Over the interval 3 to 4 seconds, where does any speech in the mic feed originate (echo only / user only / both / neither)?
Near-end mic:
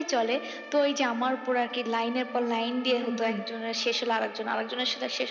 both